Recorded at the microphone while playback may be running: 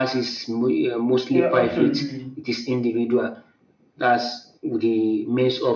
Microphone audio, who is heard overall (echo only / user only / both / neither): both